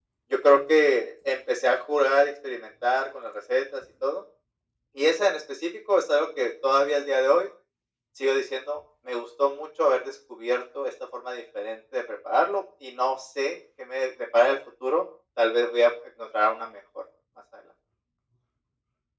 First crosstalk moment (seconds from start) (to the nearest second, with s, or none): none